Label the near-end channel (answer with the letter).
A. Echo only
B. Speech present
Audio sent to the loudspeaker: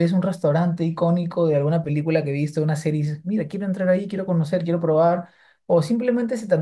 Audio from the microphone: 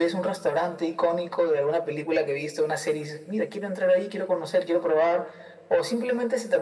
A